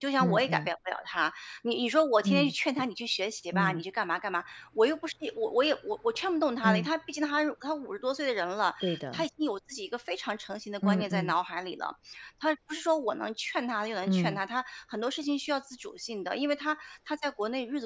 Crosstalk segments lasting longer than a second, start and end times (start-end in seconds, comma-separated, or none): none